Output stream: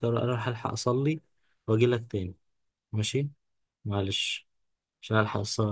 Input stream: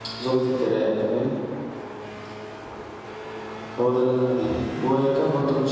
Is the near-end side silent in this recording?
No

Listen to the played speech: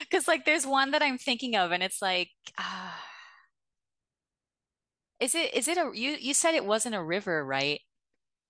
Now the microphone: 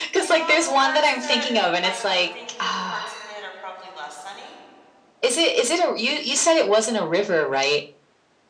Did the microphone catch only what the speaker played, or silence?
No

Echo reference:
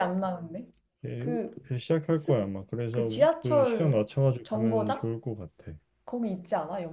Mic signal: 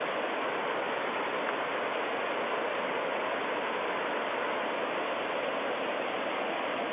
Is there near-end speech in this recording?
No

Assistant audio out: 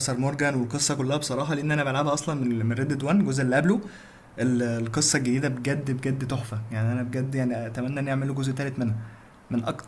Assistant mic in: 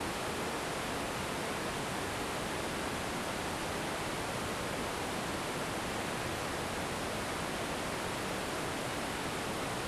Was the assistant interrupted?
No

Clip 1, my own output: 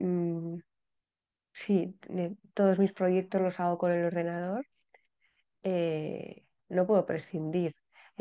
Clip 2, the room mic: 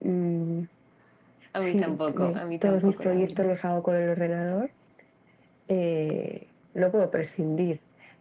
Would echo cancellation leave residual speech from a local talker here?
Yes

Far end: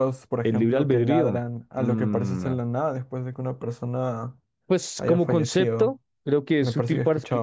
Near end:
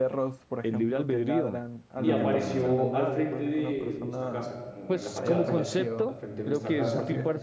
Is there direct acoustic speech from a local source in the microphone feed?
Yes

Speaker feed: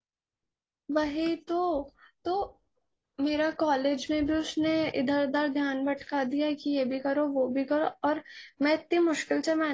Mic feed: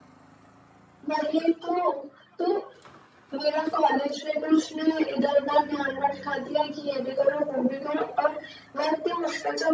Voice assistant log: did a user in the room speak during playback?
No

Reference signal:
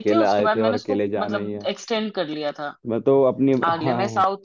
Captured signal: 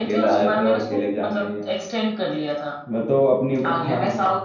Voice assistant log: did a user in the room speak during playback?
No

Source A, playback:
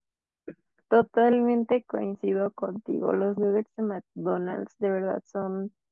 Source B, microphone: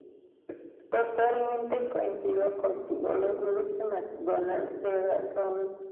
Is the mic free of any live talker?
Yes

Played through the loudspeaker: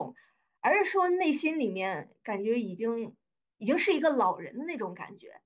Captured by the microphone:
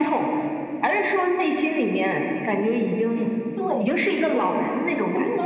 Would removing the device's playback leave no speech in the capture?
No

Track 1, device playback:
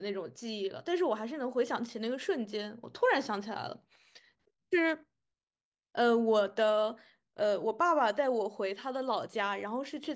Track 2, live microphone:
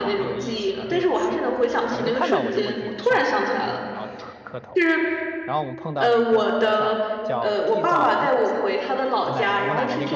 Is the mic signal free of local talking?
No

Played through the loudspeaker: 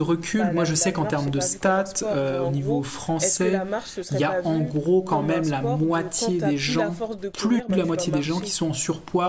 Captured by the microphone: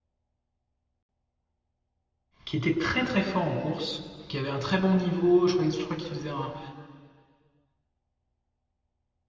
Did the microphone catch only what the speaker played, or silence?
No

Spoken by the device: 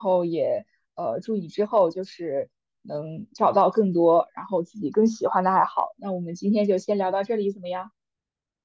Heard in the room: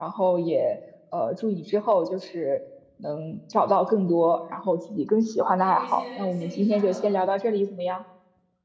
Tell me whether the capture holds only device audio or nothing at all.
No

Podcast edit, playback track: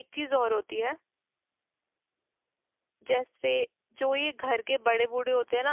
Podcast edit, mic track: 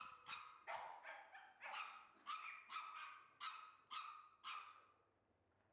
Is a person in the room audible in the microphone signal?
No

